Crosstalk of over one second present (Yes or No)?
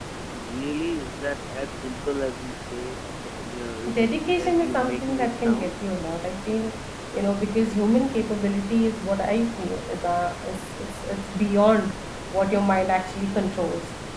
Yes